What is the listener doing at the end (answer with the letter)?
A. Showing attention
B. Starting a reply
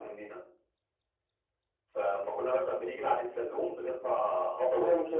A